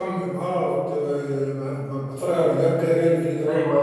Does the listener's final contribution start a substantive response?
Yes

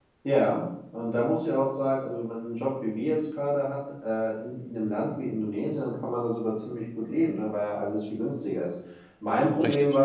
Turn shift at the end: No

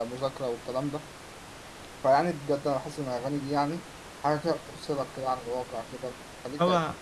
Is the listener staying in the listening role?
No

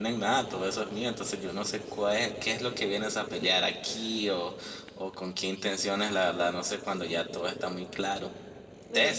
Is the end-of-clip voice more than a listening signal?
No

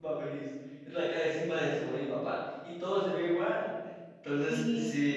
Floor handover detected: No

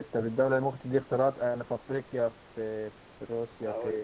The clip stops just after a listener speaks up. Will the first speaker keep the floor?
No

